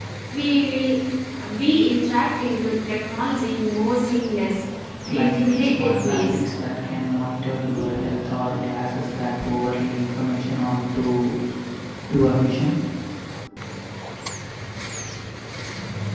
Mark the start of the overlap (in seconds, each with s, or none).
5.2 s